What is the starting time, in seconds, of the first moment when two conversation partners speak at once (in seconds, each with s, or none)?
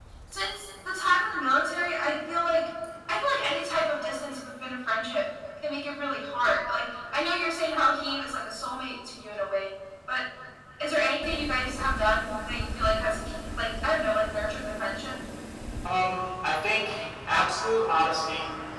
none